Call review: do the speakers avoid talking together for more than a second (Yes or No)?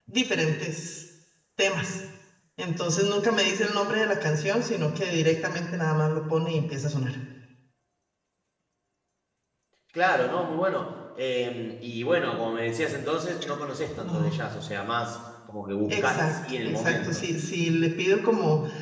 No